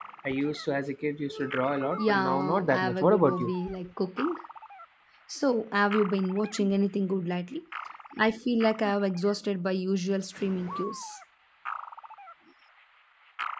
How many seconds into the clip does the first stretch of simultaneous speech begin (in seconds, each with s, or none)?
2.0 s